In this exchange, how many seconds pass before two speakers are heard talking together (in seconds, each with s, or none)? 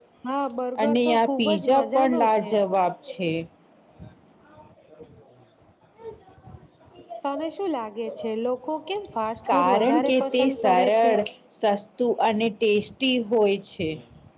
0.8 s